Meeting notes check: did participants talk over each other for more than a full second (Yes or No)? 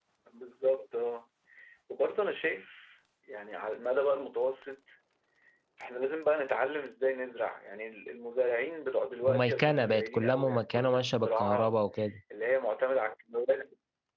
Yes